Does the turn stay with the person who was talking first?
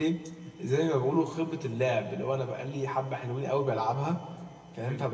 Yes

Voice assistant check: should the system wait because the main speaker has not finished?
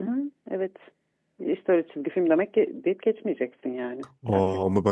No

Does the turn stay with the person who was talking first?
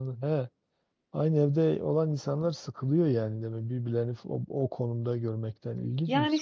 No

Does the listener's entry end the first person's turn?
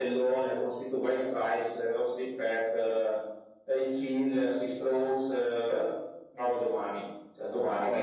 Yes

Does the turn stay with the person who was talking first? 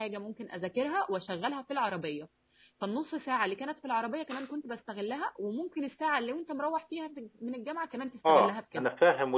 No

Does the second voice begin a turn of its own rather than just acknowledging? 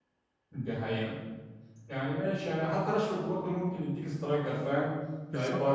No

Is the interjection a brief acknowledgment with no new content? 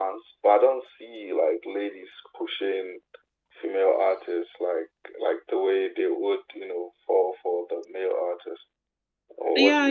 No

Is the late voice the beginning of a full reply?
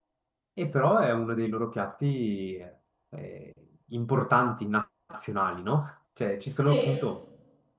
No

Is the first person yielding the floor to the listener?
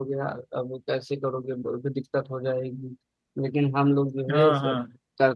No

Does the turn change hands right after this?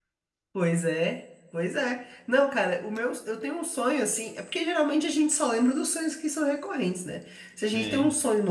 No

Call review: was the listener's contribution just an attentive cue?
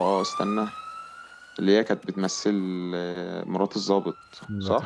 No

